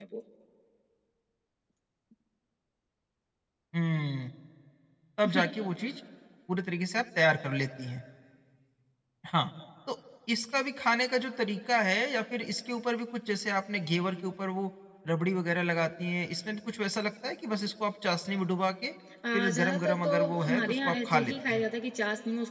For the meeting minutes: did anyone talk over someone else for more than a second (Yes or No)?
Yes